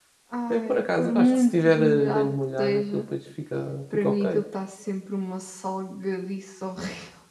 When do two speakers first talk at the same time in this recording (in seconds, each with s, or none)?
0.5 s